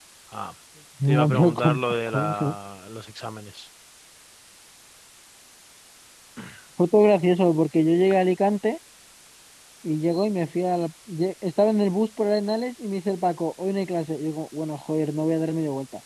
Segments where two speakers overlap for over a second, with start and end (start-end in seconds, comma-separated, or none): 1.1-2.5